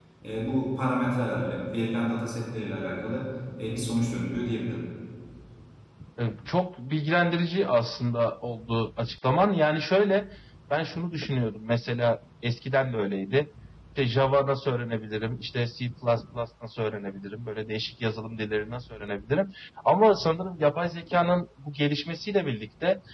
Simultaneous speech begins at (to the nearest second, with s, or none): none